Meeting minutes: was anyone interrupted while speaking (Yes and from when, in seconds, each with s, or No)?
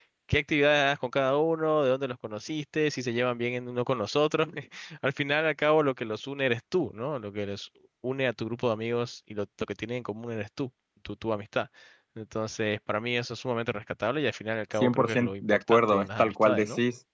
Yes, from 14.8 s